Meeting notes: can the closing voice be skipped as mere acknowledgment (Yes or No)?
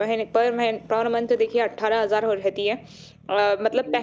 Yes